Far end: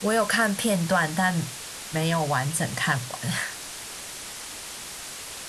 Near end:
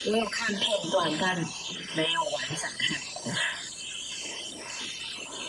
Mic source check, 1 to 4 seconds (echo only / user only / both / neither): echo only